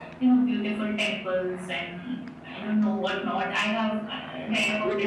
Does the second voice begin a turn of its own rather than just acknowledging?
Yes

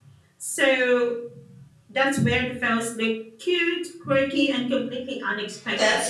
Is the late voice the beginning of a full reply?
Yes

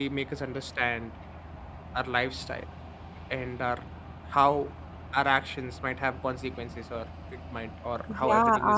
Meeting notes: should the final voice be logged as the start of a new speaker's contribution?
Yes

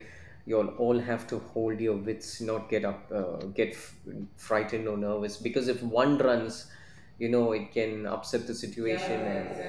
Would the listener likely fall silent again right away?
No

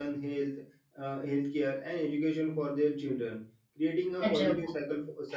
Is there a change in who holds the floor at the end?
No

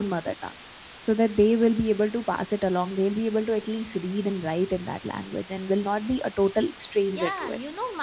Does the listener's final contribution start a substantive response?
Yes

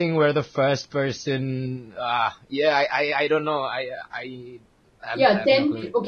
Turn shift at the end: Yes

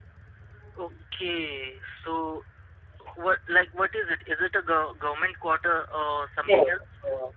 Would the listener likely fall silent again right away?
No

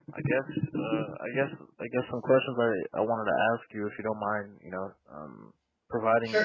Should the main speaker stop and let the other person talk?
No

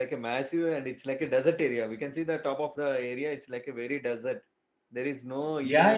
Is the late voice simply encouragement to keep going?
No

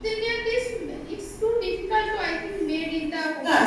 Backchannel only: No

